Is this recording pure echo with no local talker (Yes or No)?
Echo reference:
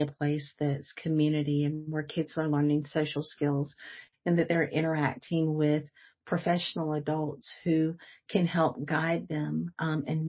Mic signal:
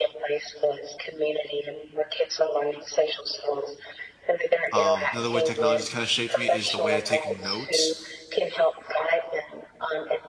No